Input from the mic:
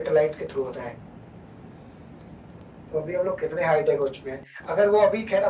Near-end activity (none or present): none